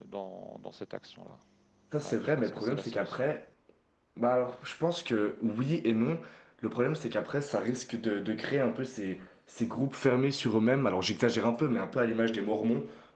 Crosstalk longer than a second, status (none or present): present